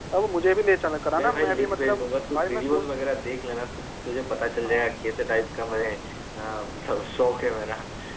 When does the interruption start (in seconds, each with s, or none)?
1.2 s